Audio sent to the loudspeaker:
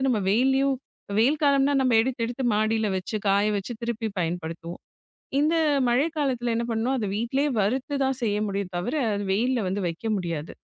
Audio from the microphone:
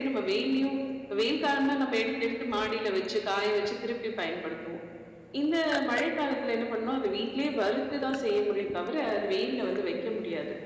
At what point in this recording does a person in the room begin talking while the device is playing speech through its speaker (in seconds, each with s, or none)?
none